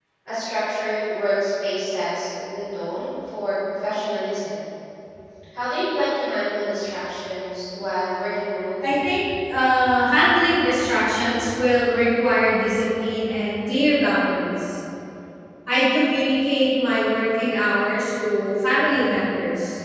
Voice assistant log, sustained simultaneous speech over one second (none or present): none